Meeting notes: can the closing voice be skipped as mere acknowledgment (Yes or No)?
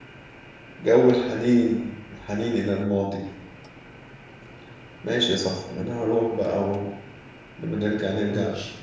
Yes